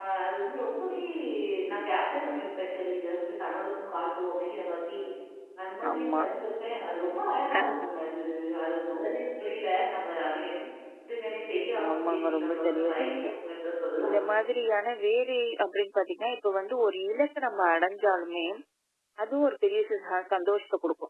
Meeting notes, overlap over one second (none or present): present